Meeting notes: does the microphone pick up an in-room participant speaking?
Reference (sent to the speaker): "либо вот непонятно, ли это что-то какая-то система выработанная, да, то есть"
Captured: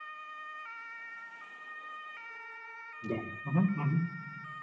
Yes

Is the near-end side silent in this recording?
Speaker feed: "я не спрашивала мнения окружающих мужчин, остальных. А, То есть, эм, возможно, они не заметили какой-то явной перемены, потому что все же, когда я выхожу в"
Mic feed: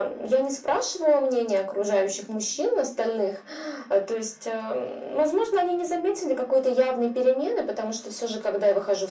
Yes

